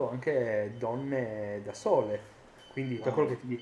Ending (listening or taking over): listening